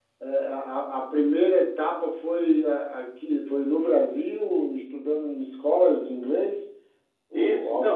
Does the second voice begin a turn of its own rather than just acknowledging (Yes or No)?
Yes